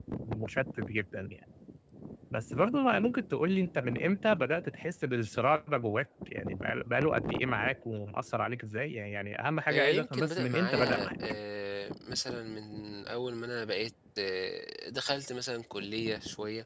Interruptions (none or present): present